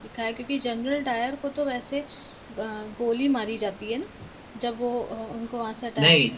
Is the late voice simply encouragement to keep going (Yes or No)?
No